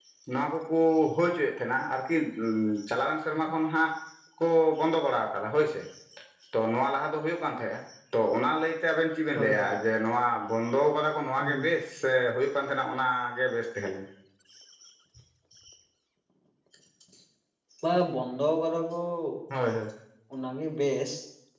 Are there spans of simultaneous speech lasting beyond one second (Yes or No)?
No